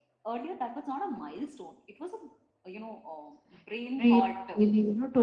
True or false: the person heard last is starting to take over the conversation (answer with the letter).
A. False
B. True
B